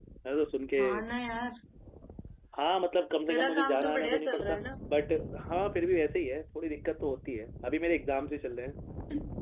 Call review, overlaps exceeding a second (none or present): present